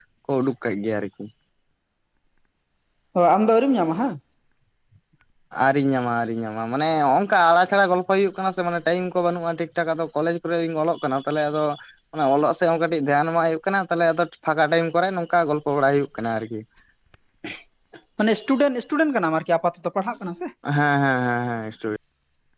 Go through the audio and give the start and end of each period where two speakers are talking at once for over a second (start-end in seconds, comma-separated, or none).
none